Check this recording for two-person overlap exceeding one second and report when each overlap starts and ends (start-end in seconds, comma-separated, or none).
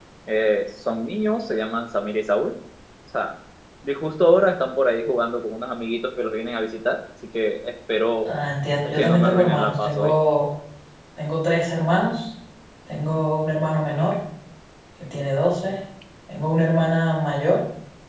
8.9-10.1